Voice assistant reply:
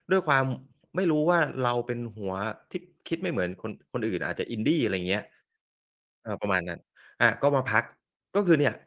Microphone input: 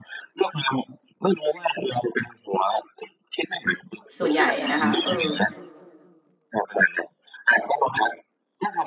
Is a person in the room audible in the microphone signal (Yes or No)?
Yes